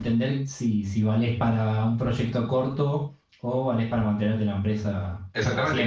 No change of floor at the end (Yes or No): No